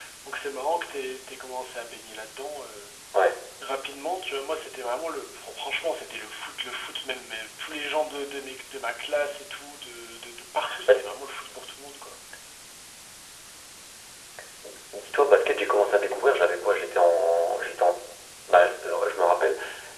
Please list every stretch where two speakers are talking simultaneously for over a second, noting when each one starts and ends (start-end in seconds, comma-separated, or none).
none